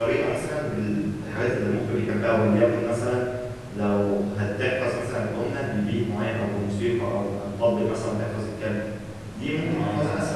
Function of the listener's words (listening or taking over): listening